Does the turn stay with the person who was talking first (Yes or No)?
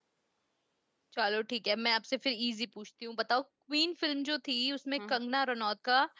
Yes